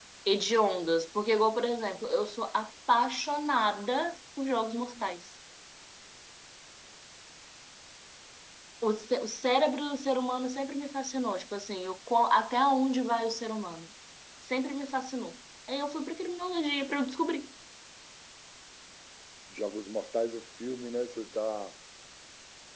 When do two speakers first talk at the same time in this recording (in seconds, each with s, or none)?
none